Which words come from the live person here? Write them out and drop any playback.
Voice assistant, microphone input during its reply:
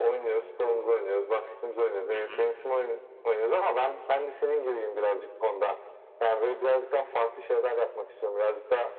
Hı hı.

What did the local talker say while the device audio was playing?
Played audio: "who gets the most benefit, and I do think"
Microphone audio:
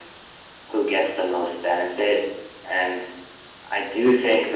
none

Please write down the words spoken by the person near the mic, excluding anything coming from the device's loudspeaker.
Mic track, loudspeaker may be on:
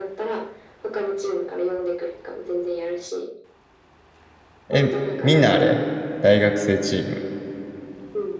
え、みんなあれ大学生チーム。

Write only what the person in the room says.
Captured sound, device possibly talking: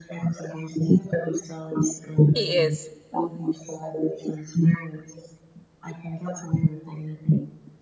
He is.

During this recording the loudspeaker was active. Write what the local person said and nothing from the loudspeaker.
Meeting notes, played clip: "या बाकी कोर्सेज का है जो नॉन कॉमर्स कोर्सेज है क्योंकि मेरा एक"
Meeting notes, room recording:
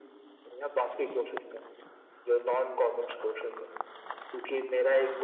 none

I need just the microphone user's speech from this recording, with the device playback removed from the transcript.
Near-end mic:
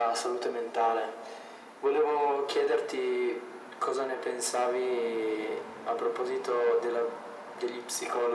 none

